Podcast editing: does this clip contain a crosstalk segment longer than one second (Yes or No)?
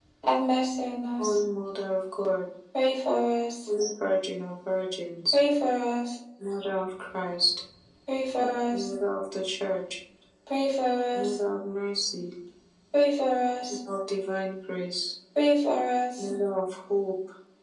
No